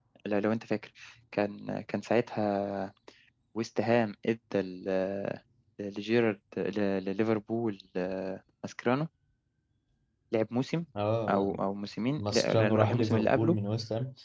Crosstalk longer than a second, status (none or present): present